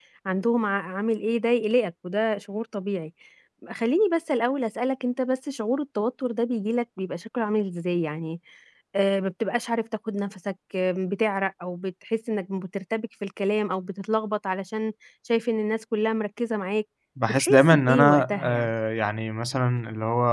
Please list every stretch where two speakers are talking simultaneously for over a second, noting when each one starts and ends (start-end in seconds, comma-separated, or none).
17.3-18.7